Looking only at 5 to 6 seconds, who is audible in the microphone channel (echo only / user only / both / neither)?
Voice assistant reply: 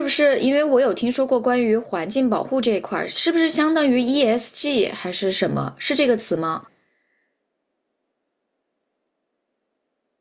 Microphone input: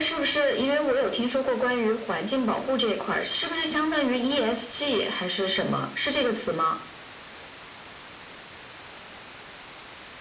echo only